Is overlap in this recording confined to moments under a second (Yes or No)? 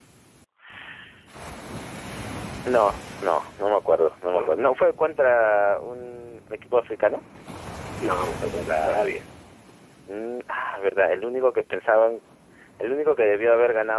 Yes